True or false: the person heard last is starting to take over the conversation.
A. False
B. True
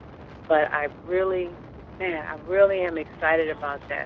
A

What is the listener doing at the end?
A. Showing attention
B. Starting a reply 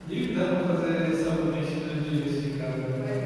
B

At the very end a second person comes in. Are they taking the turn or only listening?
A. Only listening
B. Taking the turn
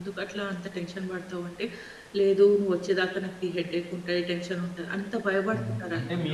B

